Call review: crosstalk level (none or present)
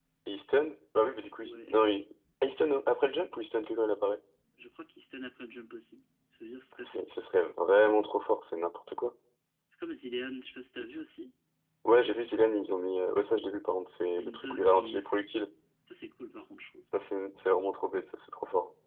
present